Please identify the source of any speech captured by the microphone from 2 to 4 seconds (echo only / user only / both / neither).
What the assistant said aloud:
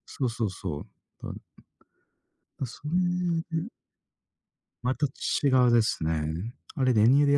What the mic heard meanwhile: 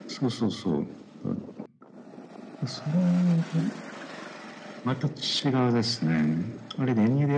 echo only